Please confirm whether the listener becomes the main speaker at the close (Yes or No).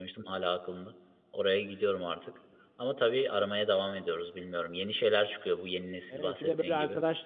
Yes